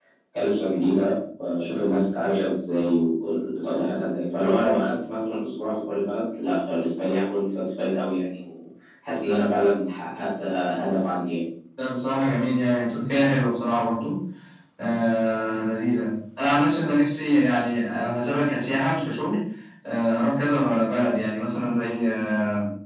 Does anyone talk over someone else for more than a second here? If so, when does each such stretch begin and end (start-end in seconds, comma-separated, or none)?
none